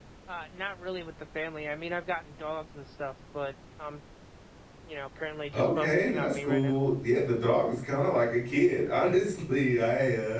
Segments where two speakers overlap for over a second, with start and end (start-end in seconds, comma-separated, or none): 5.5-6.7